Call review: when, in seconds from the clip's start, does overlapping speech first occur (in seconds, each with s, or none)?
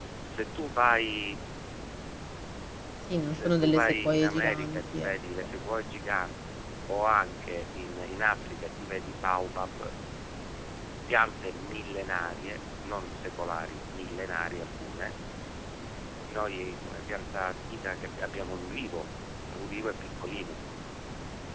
3.4 s